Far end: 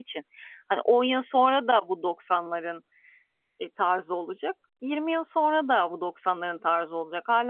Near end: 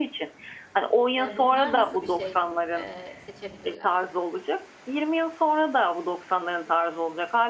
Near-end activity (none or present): present